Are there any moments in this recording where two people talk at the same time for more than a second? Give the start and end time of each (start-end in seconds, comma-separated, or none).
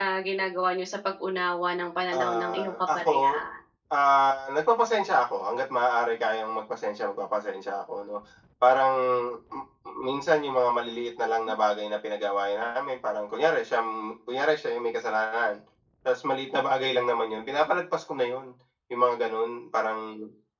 2.1-3.4